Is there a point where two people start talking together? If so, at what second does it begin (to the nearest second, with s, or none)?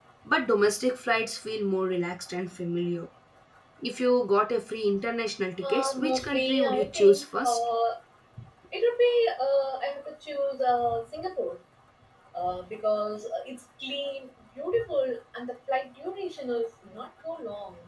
6 s